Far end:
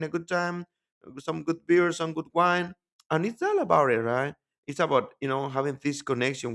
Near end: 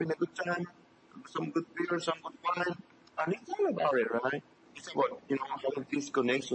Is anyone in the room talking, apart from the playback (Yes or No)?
No